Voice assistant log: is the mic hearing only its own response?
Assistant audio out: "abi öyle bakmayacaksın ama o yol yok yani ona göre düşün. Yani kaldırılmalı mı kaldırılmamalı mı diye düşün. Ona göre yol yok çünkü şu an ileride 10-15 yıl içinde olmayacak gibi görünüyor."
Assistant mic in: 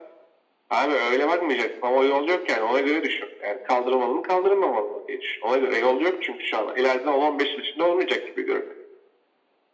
Yes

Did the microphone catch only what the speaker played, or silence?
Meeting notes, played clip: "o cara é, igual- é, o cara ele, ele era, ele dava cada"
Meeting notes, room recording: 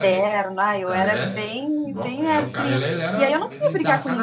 No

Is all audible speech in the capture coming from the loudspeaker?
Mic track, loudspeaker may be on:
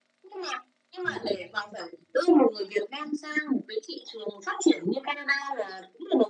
No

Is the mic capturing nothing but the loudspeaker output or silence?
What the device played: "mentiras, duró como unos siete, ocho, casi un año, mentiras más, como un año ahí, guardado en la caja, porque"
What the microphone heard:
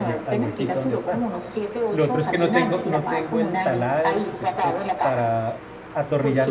No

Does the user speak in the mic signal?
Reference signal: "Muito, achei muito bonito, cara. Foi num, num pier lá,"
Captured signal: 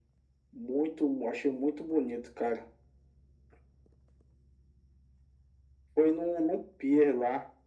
No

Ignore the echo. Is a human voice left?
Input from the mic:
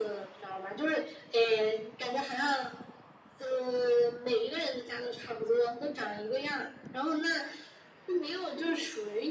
No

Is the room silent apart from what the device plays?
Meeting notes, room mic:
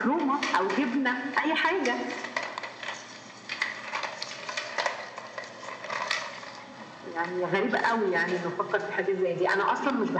Yes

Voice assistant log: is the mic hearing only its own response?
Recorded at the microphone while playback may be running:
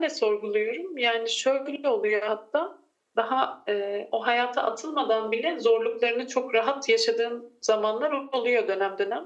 Yes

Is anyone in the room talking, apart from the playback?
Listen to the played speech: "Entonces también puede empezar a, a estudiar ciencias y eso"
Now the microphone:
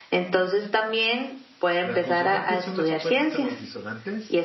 Yes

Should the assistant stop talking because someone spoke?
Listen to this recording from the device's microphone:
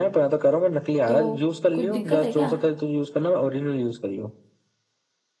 Yes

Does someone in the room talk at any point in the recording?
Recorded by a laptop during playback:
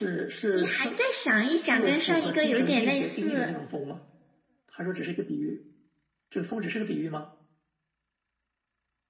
Yes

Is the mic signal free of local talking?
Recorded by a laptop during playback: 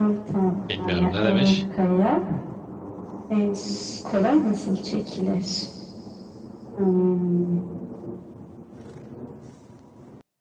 No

